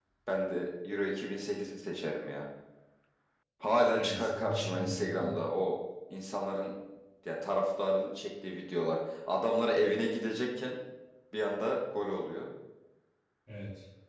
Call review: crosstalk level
present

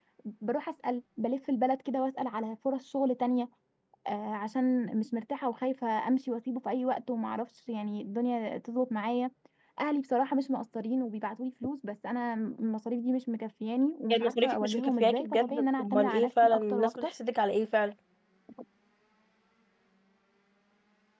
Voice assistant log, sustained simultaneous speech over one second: present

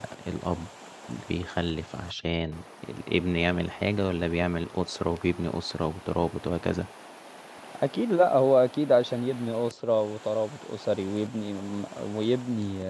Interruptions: none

